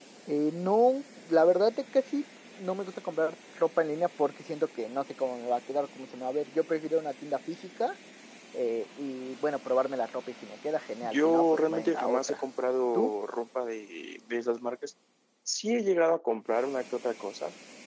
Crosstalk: present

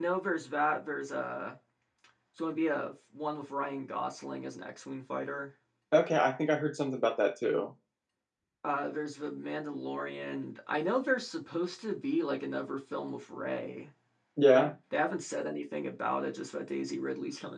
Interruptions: none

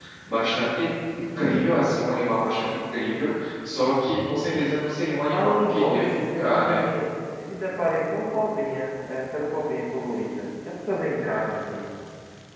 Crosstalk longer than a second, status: present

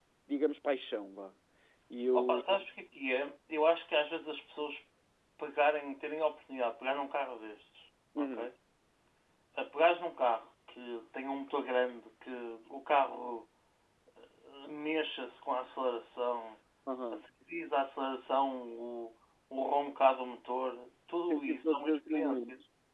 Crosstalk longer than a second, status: present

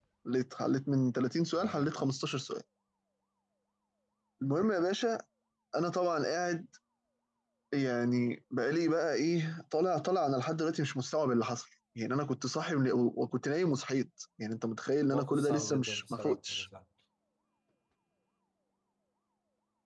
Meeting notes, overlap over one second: present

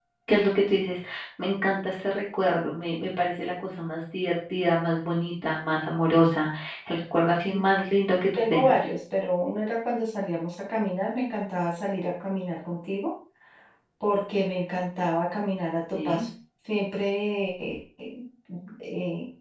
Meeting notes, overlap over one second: none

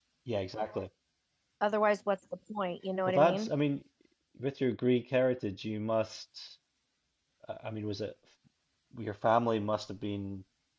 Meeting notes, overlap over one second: none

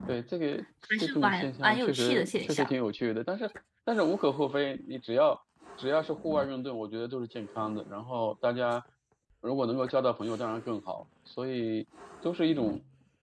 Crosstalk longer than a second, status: present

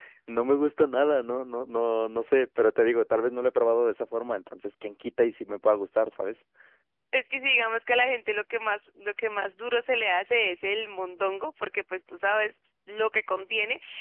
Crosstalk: none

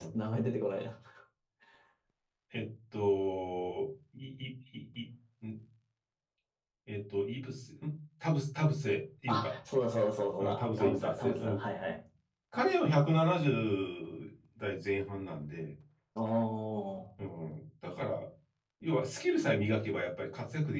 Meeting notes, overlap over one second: present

